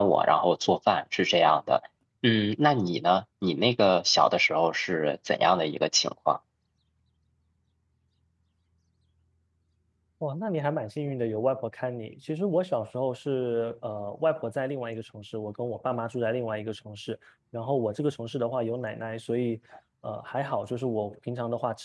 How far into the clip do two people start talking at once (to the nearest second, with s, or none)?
none